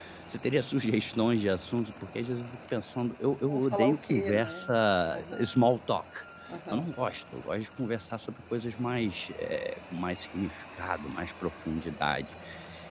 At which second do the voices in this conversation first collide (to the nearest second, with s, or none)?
3 s